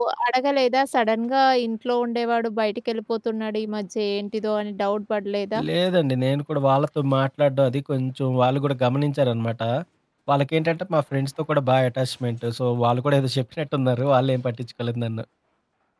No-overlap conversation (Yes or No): Yes